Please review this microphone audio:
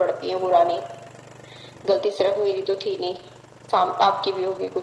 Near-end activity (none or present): none